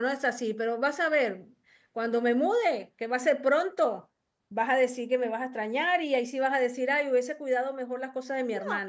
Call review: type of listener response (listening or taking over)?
taking over